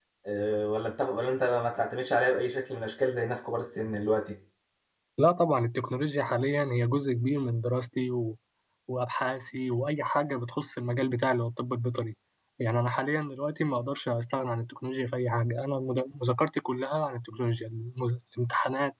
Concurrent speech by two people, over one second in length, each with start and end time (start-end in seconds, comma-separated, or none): none